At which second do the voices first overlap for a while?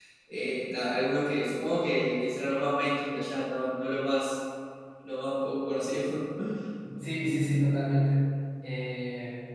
none

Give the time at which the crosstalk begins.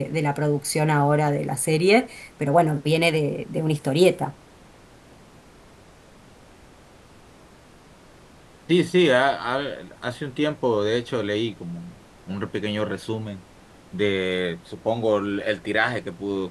none

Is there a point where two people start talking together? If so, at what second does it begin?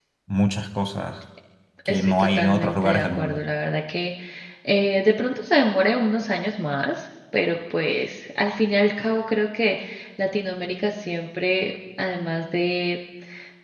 1.9 s

